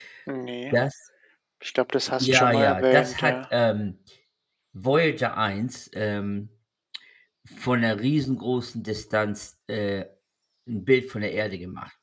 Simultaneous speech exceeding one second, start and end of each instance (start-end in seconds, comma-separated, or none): 2.2-3.4